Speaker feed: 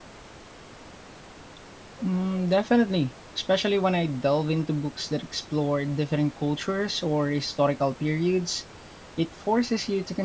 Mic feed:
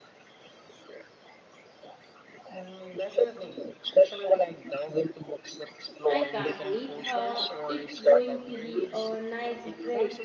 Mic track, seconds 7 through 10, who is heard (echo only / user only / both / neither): both